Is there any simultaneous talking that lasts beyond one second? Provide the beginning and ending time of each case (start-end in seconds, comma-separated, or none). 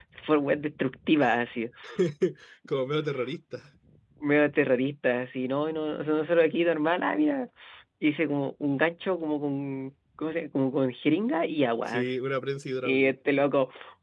none